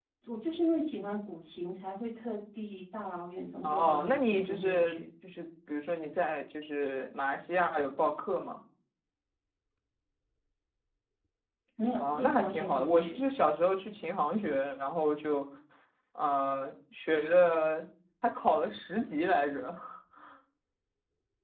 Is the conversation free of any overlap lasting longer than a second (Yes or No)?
No